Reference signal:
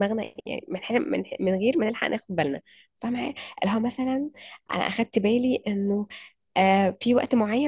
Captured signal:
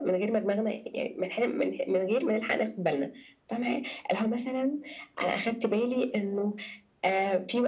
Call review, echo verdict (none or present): present